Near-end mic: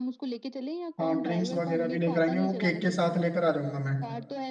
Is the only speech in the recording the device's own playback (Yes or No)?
No